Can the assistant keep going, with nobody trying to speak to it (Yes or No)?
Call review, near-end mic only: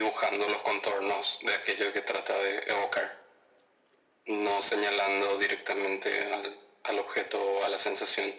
Yes